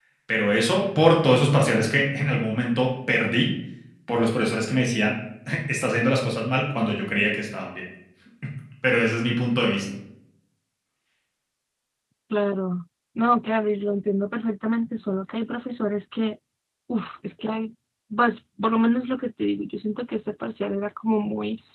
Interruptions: none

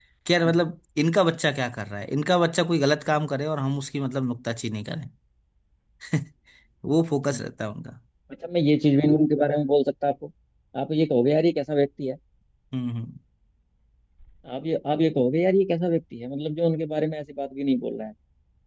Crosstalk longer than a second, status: none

